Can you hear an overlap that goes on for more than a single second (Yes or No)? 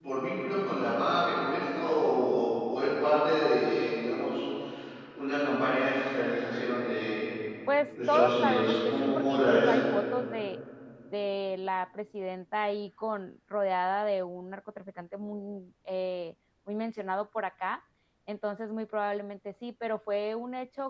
Yes